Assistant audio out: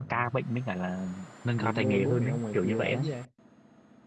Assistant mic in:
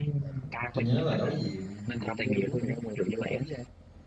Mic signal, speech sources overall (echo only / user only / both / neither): both